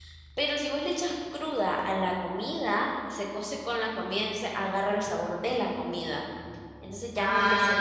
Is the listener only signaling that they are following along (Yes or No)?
No